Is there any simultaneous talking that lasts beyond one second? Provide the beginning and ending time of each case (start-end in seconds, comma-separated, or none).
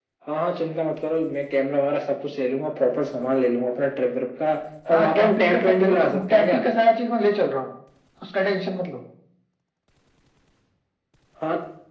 4.9-6.6